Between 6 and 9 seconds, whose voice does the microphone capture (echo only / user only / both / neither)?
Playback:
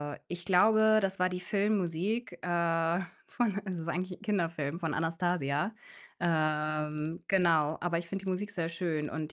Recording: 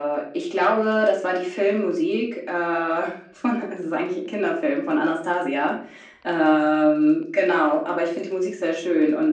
echo only